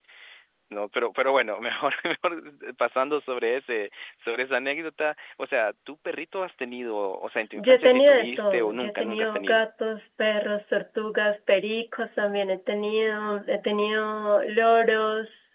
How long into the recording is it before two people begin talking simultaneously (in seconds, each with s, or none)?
7.6 s